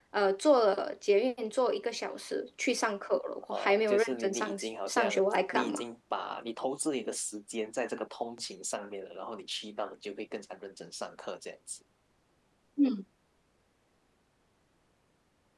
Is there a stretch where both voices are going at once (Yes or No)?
Yes